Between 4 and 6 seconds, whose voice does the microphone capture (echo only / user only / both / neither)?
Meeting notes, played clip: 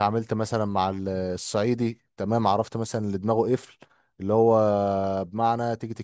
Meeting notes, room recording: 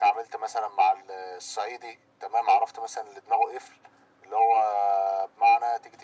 echo only